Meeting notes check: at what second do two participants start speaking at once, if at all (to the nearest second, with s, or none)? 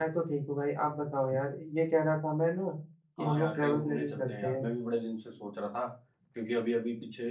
3 s